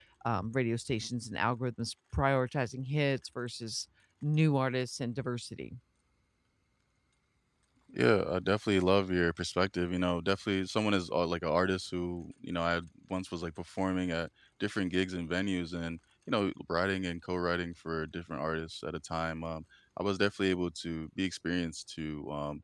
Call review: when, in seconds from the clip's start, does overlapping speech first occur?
none

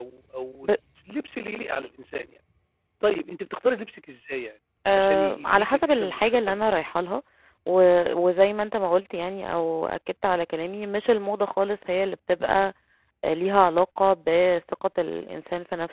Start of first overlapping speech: 4.8 s

